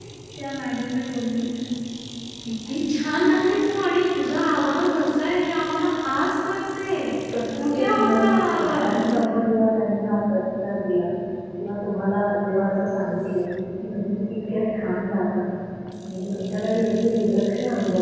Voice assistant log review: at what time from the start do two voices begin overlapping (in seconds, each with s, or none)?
7.5 s